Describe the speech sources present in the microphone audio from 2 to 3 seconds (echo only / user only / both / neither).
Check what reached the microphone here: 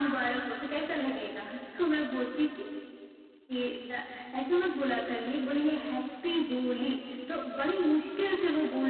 echo only